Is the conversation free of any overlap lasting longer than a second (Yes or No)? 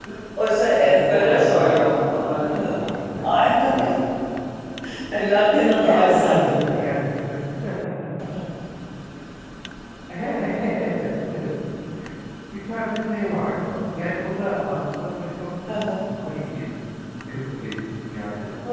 No